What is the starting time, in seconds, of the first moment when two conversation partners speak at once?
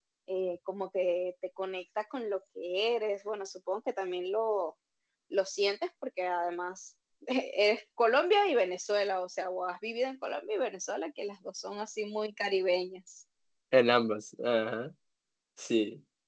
none

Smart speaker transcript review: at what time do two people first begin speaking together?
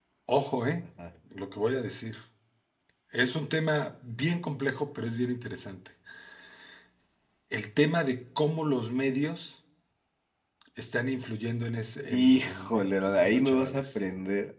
12.1 s

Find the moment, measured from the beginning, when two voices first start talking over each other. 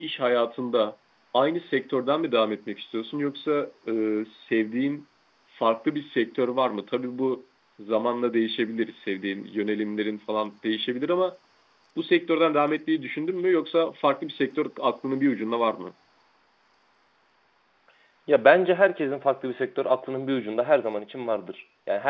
none

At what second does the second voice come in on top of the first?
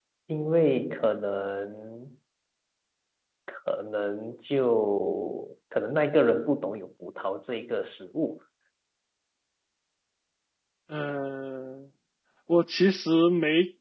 none

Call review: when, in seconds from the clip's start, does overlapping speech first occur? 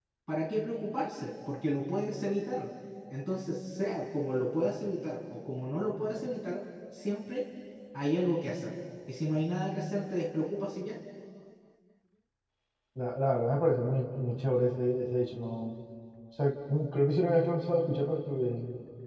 none

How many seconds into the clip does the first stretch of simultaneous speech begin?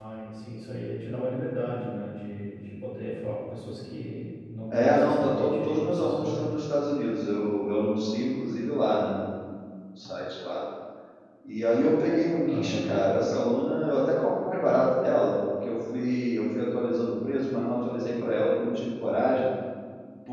4.7 s

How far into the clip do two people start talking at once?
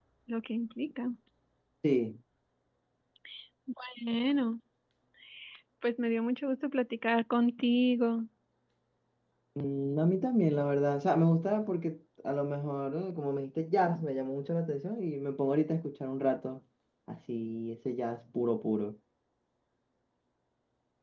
none

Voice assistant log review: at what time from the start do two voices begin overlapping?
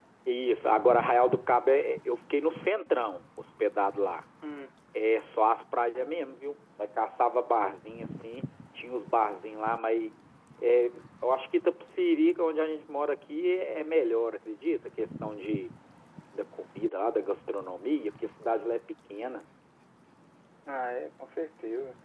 none

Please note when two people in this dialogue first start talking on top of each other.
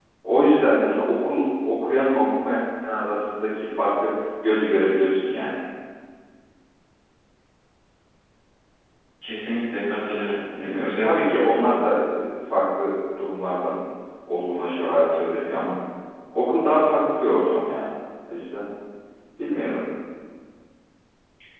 10.2 s

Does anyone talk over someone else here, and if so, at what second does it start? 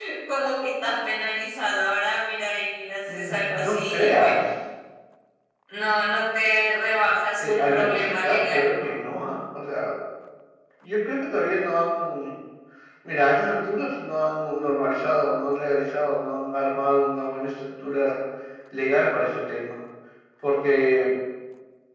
3.1 s

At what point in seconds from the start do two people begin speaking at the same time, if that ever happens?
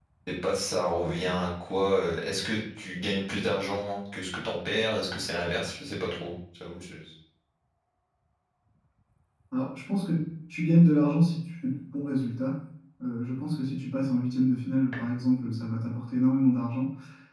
none

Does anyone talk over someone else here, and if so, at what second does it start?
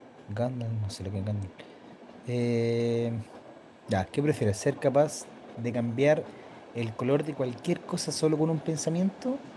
none

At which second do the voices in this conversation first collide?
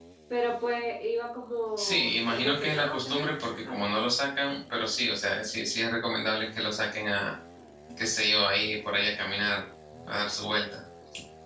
1.8 s

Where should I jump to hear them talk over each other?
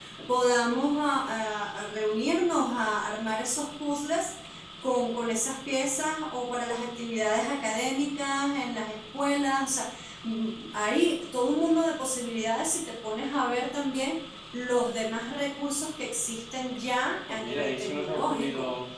17.3 s

